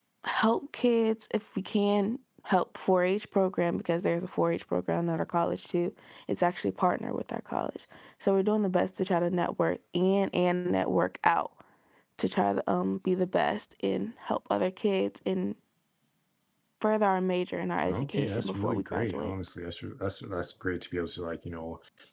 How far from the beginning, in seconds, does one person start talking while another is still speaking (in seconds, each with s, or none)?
17.8 s